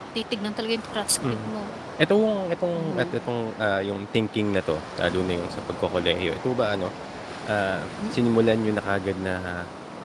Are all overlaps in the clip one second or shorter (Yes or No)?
Yes